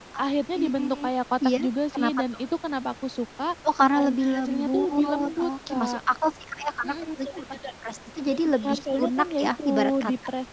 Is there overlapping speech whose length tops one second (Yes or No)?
Yes